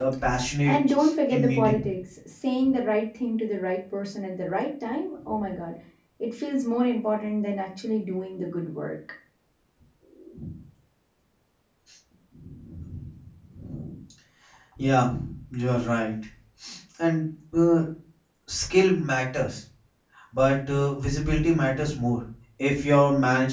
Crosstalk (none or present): present